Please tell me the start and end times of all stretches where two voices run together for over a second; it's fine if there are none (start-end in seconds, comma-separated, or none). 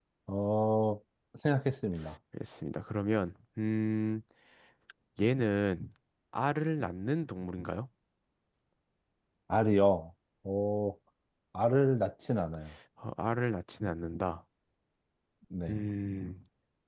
none